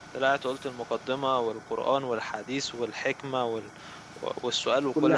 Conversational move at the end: listening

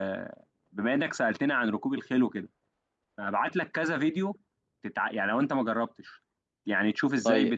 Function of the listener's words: listening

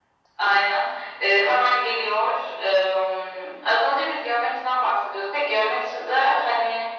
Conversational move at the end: listening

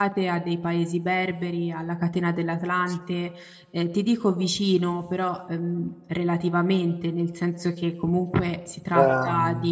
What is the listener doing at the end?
listening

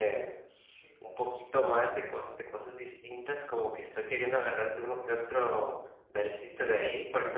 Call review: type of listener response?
listening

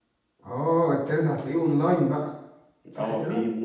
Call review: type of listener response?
taking over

